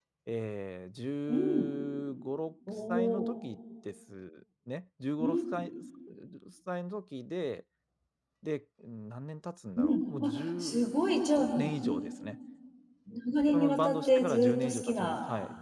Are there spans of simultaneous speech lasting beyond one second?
Yes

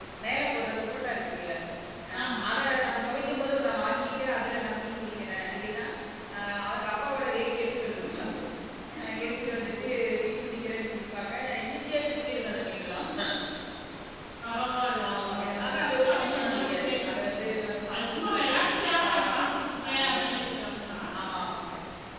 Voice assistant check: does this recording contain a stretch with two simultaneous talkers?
Yes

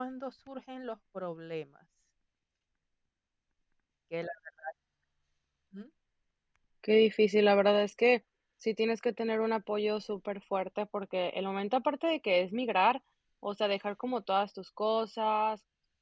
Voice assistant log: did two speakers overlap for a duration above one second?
No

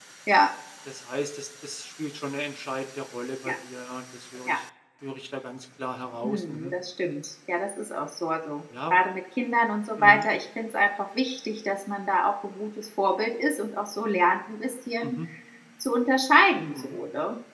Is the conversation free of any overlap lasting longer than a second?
Yes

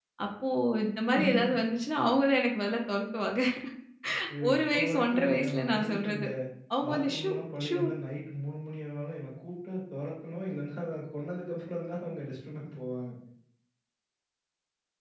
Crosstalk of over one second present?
Yes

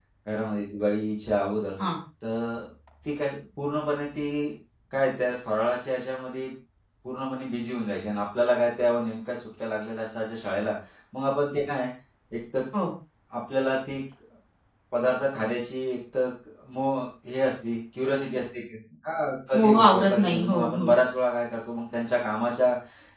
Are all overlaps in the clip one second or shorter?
No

